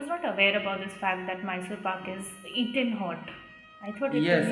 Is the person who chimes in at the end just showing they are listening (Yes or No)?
No